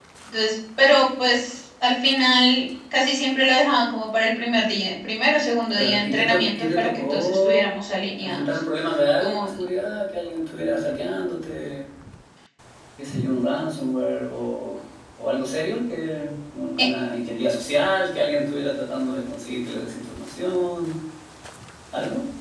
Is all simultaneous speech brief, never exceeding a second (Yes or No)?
No